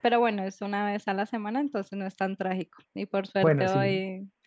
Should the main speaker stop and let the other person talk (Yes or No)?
No